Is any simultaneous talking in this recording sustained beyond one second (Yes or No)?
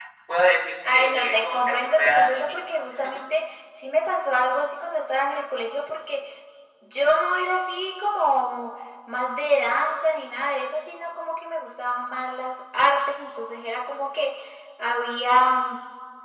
Yes